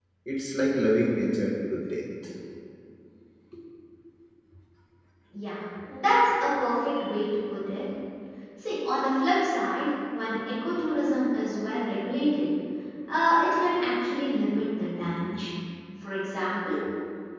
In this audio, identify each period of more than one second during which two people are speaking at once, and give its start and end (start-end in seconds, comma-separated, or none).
none